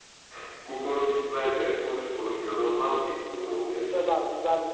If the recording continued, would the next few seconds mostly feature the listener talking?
Yes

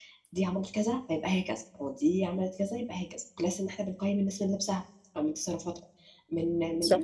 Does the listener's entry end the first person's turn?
No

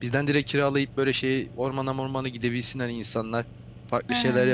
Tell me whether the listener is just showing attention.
Yes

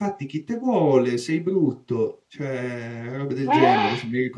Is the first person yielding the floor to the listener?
No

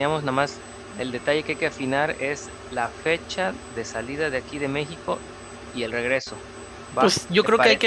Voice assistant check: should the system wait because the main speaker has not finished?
No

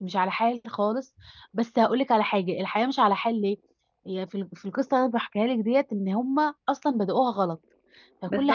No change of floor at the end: No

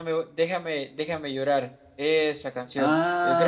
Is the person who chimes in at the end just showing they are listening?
No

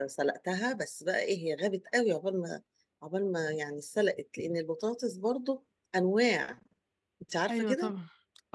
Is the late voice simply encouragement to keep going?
No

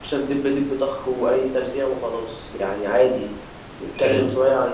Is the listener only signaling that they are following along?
Yes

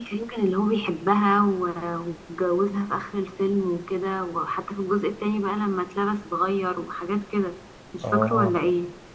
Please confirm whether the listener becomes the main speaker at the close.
Yes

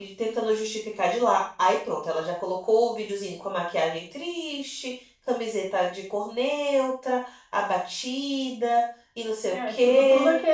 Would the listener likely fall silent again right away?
No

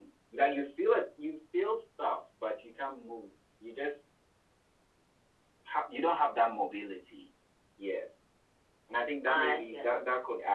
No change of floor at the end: Yes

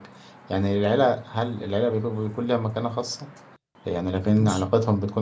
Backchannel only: Yes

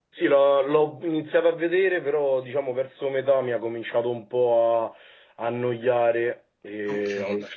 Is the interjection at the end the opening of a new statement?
Yes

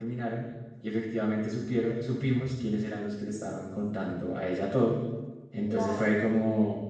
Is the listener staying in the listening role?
Yes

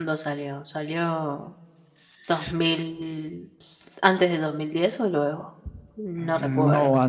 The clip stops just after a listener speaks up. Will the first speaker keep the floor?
No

